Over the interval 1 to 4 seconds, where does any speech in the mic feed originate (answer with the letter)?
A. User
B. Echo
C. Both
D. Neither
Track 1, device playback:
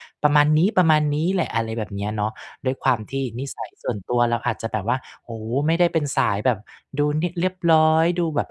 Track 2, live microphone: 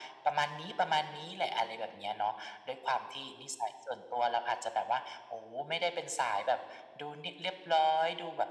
B